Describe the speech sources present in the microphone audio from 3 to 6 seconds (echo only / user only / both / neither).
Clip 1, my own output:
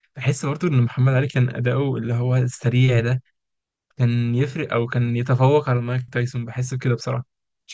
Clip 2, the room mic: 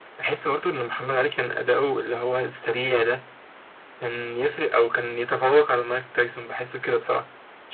echo only